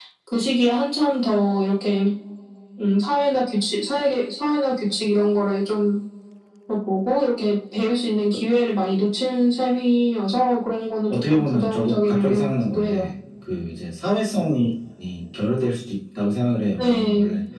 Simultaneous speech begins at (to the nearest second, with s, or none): 11 s